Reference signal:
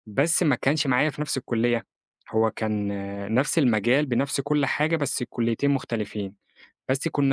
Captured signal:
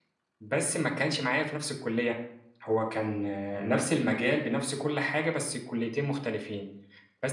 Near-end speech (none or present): present